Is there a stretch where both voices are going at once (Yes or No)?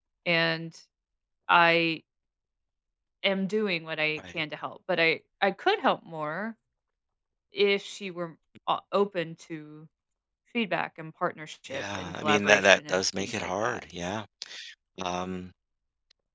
Yes